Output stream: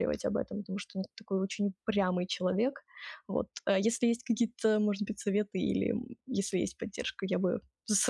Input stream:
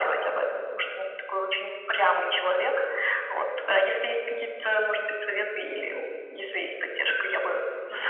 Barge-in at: none

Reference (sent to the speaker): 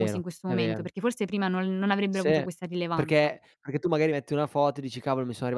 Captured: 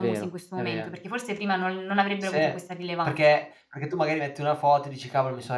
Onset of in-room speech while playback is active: none

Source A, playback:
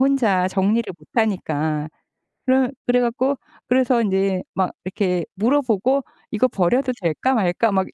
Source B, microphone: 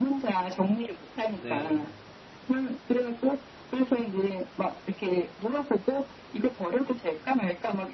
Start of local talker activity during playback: 1.3 s

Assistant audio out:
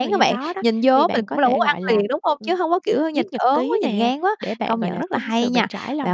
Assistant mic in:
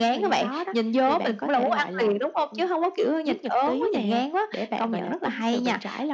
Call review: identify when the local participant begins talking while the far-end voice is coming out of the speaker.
none

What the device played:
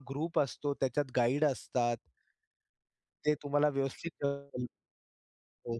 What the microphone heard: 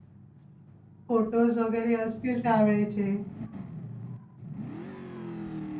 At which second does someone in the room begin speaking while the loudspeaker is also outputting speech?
1.1 s

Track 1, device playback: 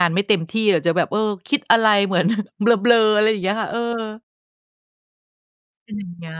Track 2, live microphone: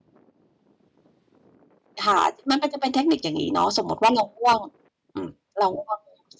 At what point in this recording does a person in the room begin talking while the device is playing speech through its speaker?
2.0 s

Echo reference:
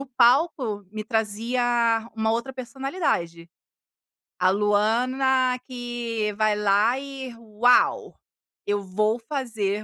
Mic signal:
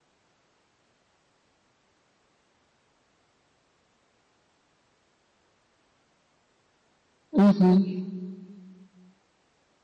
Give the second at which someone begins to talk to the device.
7.3 s

